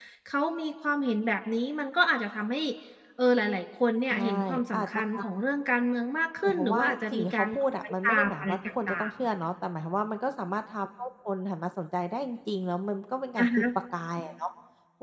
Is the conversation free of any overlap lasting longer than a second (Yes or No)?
No